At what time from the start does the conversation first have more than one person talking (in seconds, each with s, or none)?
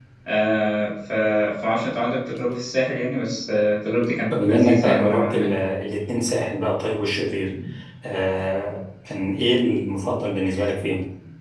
4.3 s